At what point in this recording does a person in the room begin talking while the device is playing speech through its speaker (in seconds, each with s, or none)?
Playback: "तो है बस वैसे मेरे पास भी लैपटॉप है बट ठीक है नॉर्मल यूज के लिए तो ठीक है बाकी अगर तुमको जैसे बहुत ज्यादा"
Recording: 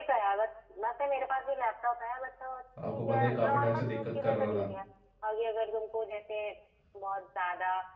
2.8 s